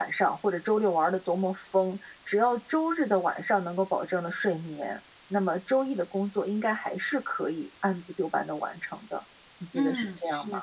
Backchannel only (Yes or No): No